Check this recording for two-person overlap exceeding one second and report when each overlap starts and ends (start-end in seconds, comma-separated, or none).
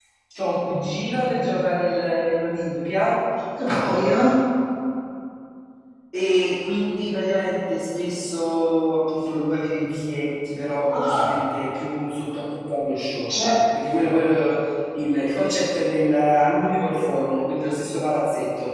none